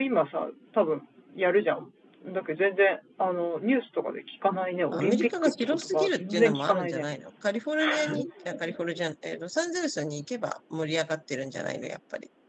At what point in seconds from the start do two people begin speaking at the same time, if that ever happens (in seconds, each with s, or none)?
4.9 s